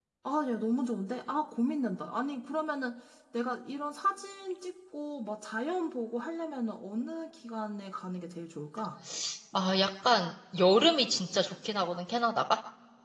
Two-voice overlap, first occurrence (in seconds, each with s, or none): none